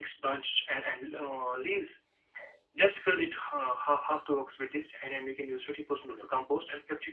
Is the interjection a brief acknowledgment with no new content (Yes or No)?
Yes